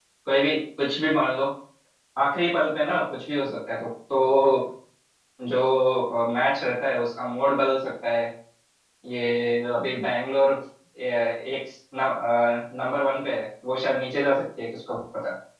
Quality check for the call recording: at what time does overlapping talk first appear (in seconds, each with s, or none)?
none